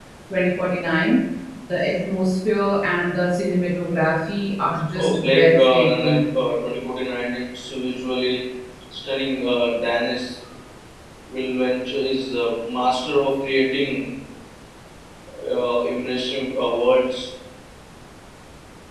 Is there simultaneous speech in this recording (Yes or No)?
Yes